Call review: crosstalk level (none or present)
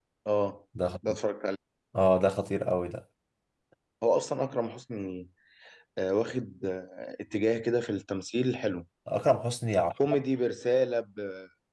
none